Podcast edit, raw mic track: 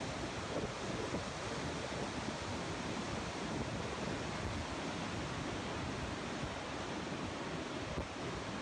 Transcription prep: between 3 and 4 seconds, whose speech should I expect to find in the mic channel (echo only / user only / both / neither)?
neither